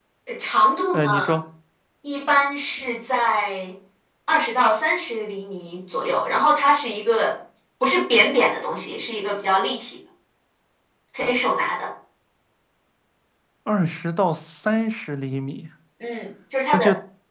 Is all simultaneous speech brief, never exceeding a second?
Yes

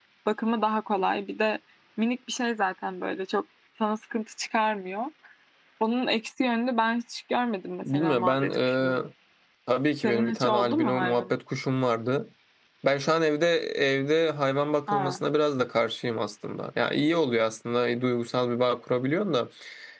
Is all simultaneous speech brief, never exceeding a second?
No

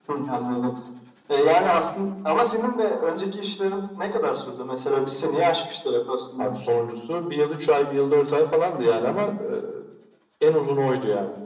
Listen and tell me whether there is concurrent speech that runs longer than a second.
No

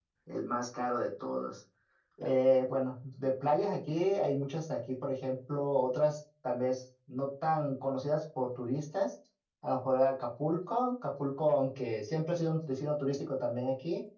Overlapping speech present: No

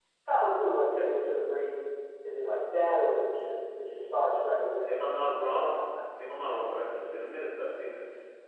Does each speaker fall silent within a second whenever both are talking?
Yes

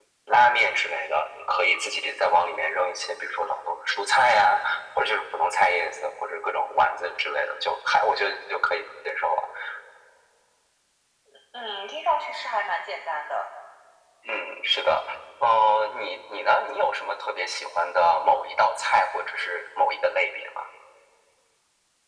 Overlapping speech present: No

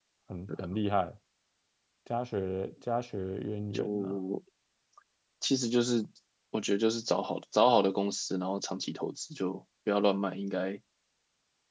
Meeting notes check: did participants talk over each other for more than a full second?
No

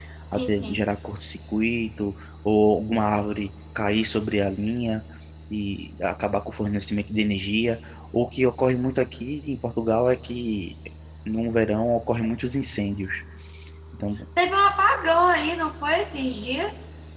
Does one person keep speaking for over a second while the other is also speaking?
No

